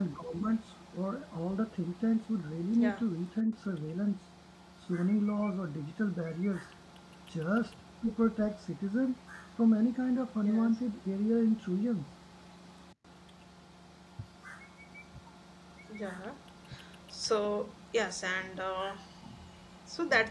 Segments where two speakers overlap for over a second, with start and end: none

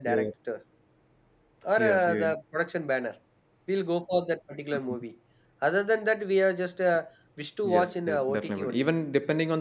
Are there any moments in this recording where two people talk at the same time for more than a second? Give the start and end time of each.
7.6-8.9

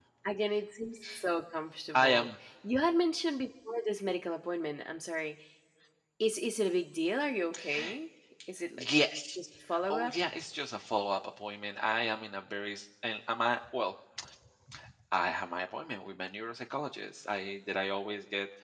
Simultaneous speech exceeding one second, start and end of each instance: none

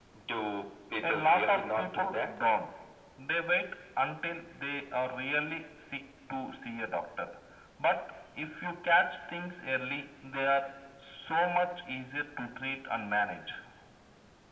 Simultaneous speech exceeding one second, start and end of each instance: 1.0-2.3

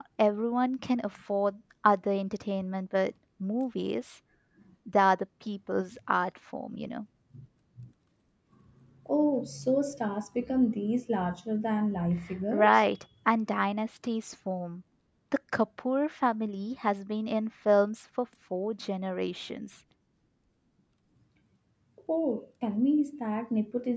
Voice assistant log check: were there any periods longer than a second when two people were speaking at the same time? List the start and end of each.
none

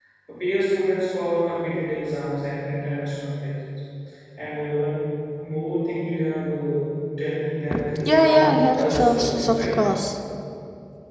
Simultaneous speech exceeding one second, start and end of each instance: 8.0-9.8

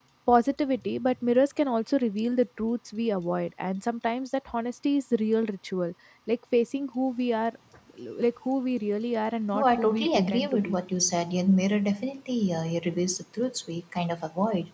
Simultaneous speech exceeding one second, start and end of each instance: 9.5-10.8

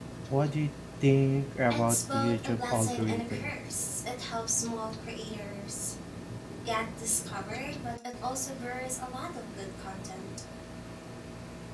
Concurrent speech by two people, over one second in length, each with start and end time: 1.7-3.5

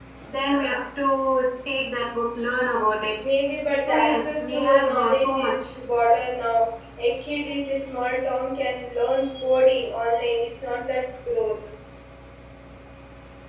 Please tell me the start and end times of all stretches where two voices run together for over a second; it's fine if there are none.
3.9-5.7

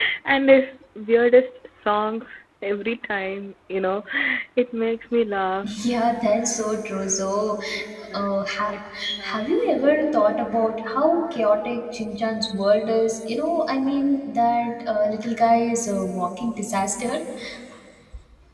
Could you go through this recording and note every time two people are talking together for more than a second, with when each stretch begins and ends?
none

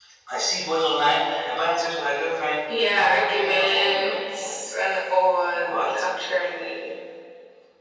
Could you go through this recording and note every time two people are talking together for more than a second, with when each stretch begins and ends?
2.9-4.5

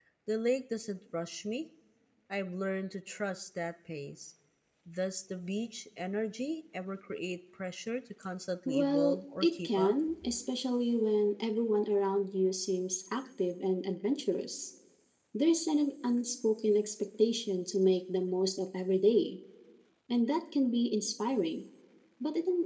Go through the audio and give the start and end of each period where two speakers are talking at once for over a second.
8.7-9.9

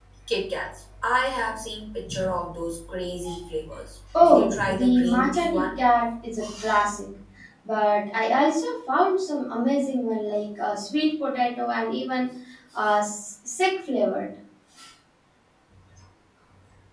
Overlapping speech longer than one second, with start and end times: 4.1-5.8

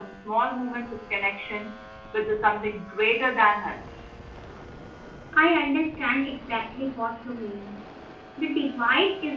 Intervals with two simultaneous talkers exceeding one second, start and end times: none

